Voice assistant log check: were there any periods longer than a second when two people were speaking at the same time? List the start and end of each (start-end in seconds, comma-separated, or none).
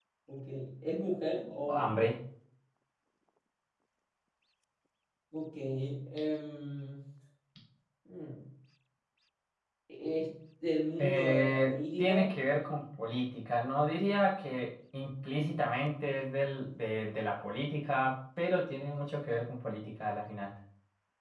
11.0-12.3